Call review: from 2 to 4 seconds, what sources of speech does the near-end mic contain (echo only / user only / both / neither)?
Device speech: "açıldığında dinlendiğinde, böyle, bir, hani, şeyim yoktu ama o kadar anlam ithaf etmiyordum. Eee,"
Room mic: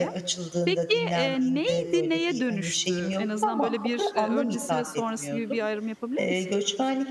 both